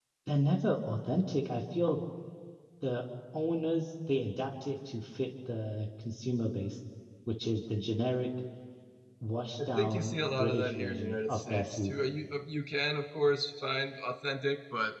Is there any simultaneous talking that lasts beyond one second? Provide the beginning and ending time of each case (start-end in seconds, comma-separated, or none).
9.7-11.9